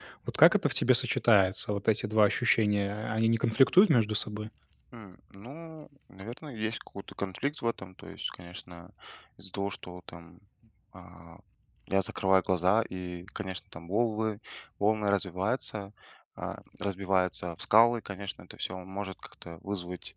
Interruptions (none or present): none